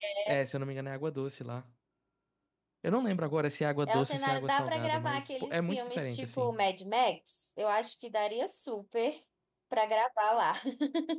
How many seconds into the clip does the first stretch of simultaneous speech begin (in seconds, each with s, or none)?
3.9 s